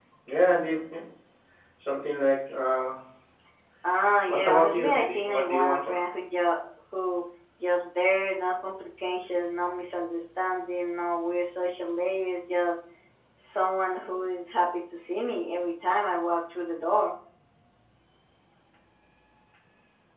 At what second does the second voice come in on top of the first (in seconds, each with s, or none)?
4.3 s